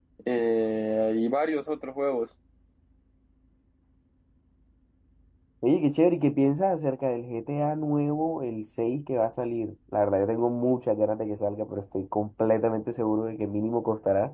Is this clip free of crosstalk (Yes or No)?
Yes